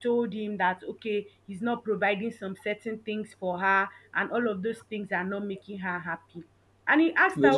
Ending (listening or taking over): listening